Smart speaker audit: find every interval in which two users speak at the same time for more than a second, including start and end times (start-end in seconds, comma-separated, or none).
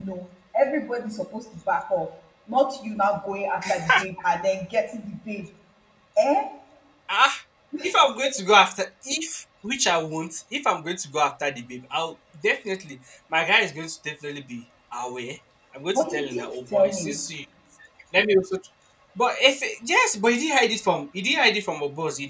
15.9-17.3